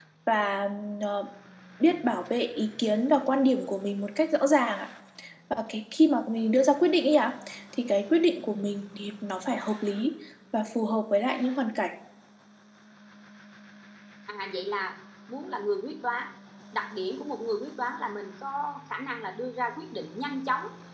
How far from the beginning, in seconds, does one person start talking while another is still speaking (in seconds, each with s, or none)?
none